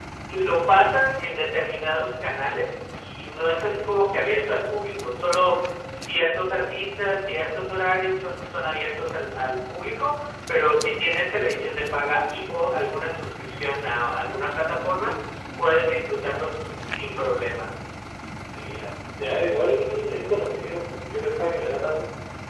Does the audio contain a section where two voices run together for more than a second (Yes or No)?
No